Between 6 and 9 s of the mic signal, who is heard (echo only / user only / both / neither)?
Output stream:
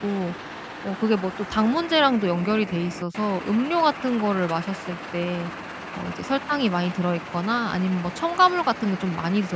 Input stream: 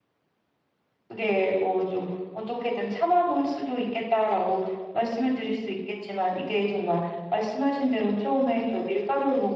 user only